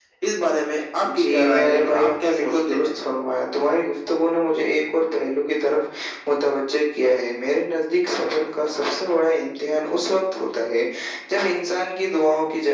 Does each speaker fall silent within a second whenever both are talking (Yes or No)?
No